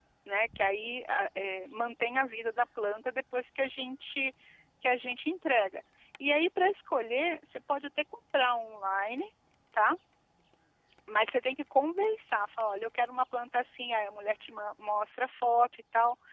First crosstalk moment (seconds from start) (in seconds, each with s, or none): none